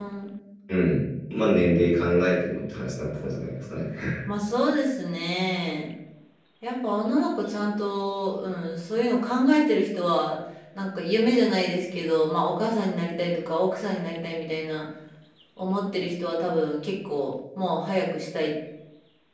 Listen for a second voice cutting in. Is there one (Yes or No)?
No